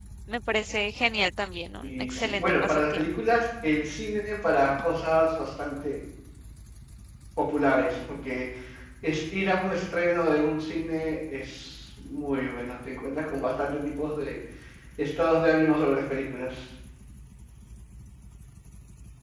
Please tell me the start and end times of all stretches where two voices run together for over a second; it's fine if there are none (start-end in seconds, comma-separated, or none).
1.8-3.1